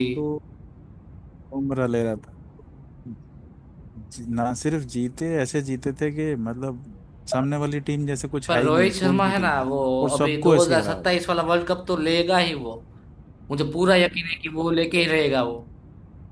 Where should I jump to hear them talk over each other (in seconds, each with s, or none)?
8.5 s